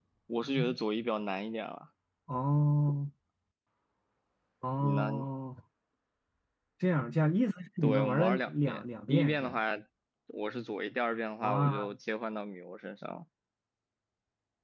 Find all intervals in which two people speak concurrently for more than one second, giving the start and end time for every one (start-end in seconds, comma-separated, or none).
7.8-9.6